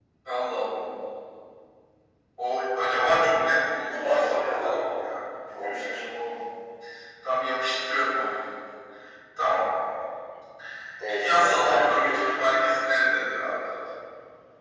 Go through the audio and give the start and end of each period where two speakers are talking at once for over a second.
3.9-5.1, 11.1-12.3

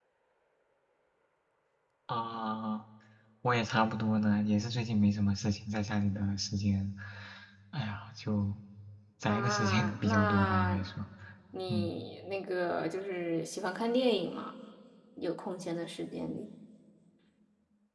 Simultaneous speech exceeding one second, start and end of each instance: 9.3-10.8

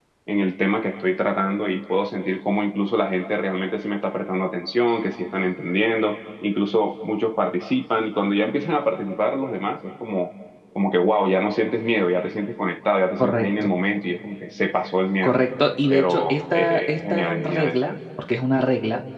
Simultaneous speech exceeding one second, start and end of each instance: 15.9-17.8

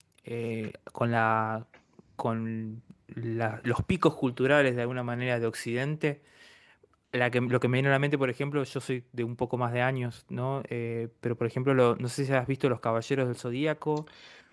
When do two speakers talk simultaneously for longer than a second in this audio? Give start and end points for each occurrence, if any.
none

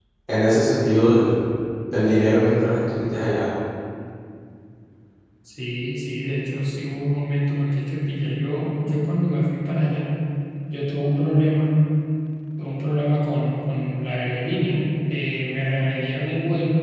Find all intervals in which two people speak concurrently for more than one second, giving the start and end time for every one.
none

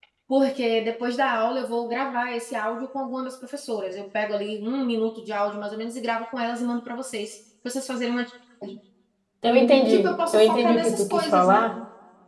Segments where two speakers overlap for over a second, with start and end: 9.9-11.6

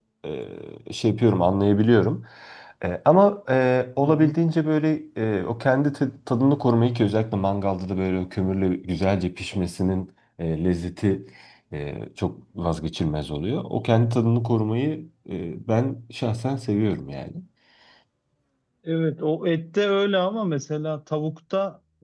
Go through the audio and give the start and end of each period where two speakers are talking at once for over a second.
none

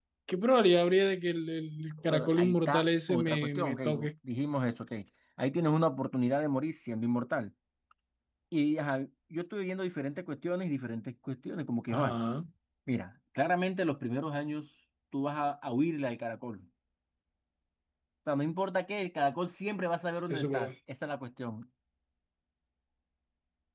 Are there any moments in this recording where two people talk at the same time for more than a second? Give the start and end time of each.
2.1-4.1

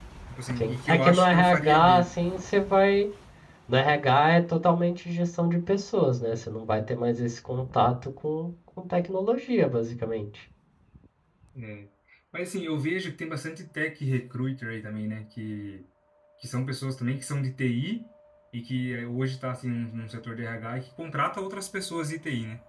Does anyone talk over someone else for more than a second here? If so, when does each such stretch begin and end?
0.6-2.0

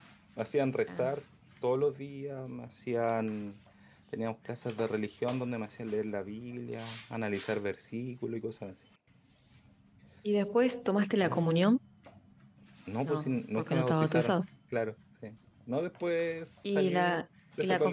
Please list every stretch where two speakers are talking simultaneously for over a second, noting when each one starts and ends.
13.0-14.4

